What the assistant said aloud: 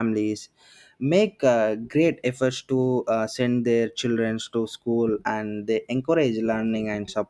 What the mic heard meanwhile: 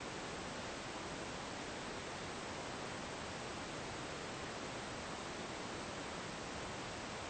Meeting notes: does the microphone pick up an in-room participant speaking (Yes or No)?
No